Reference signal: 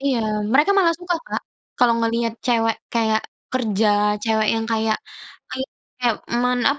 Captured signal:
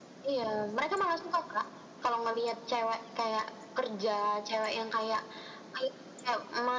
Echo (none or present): present